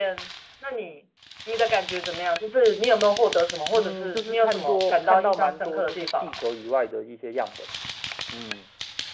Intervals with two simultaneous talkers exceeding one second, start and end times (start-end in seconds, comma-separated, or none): 3.7-6.4